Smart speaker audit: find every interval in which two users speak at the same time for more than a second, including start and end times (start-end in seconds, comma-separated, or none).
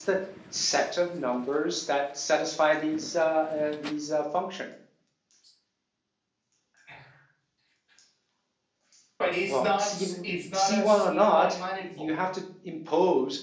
9.5-12.1